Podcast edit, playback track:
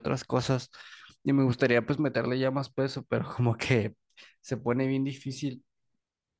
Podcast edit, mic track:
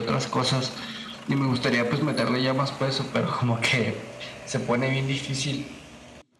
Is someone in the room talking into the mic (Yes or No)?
No